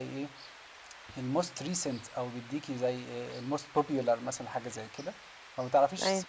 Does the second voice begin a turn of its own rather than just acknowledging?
No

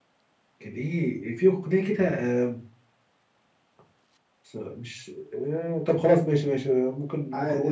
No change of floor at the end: Yes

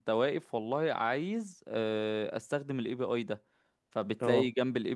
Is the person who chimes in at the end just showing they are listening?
Yes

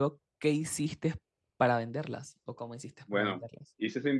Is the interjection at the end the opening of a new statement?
Yes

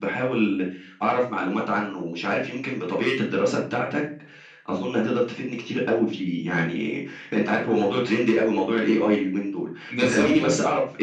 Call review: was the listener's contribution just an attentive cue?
Yes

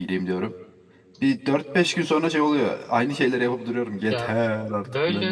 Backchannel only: No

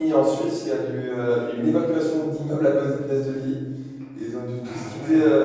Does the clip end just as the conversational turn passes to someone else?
No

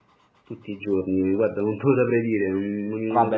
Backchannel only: No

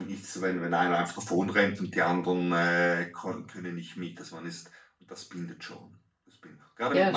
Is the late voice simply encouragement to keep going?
Yes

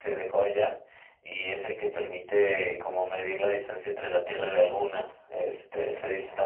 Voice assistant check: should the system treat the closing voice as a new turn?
No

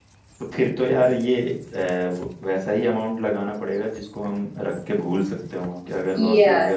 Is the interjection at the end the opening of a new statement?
Yes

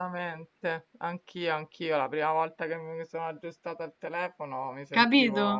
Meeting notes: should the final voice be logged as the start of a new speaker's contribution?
No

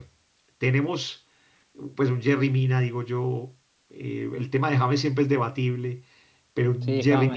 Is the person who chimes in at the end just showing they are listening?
Yes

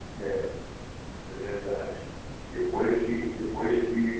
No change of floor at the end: Yes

